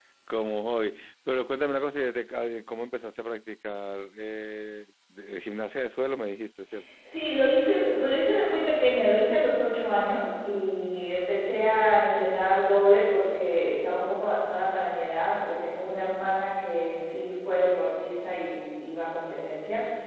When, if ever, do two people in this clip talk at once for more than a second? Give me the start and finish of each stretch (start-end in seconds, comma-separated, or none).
none